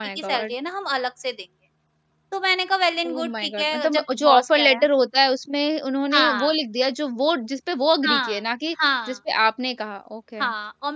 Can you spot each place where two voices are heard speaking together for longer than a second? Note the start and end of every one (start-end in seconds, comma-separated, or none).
3.0-4.9